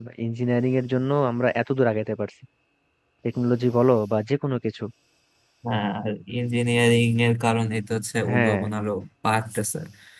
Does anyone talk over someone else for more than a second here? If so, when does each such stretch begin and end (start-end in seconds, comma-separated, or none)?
none